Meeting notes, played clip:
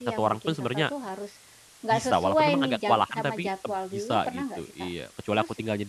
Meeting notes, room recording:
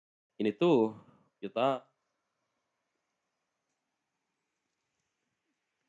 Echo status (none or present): none